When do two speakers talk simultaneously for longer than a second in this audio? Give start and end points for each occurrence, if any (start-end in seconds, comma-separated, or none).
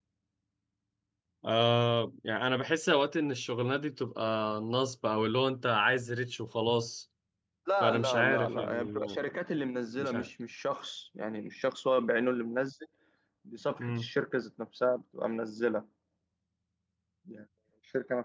7.8-9.3